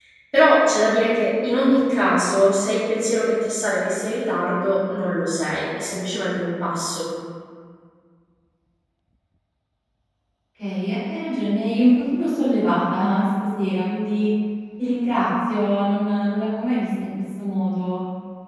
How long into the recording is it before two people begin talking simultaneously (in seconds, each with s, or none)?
none